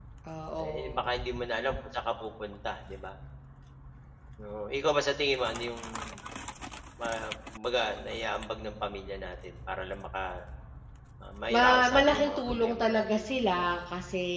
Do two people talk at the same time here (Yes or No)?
Yes